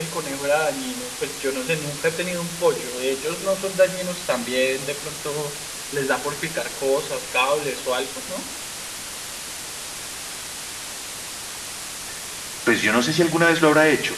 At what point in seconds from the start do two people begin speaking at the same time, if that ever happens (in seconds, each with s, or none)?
none